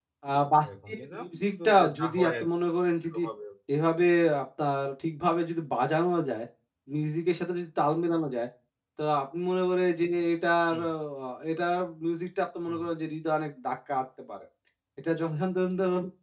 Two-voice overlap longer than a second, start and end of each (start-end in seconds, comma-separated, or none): 0.7-2.5